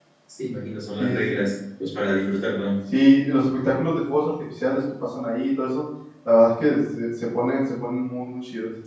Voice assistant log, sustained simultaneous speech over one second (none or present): none